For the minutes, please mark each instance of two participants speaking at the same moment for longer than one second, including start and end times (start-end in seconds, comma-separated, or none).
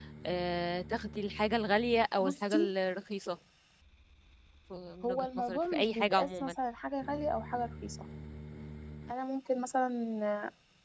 5.0-6.5